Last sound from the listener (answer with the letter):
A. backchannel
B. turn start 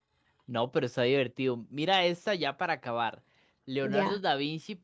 A